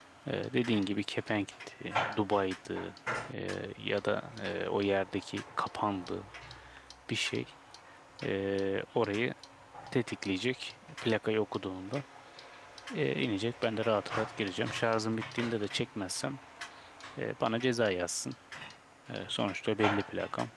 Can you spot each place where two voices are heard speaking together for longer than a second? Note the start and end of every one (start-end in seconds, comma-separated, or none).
none